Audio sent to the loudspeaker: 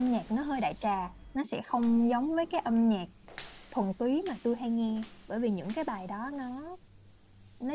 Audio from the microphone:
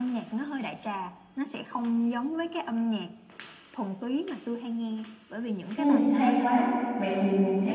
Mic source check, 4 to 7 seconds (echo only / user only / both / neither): both